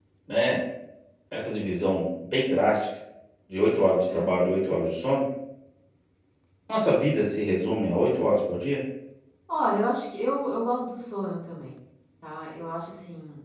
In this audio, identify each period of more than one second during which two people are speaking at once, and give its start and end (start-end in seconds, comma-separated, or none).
none